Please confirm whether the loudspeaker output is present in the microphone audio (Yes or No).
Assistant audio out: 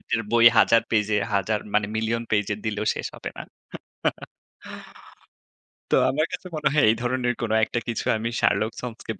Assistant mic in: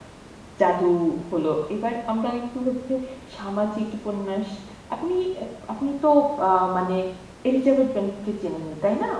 No